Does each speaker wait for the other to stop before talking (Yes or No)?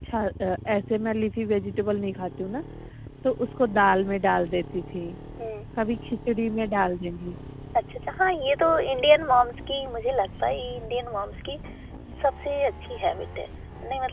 Yes